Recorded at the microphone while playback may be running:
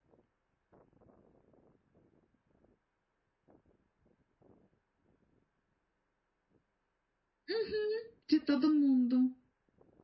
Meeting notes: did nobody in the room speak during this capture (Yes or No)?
No